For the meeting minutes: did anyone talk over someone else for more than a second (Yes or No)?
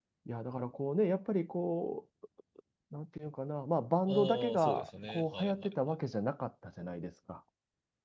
Yes